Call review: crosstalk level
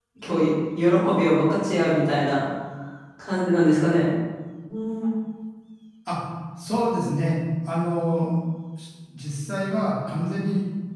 none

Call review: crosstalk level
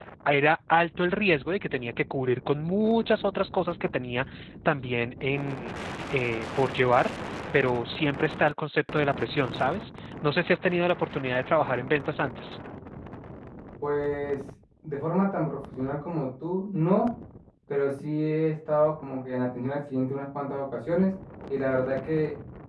none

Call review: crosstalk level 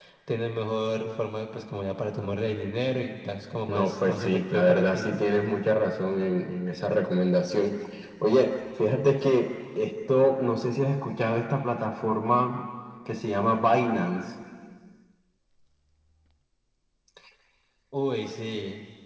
present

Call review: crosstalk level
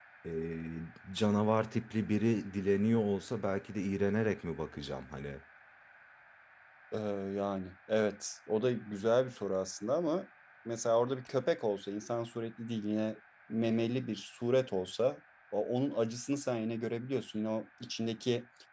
none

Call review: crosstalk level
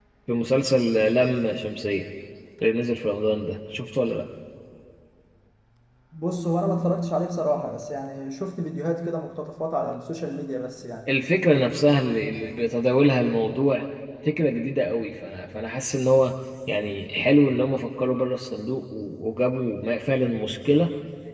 none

